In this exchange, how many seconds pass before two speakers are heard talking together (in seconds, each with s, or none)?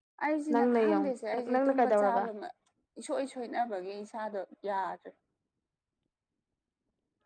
0.5 s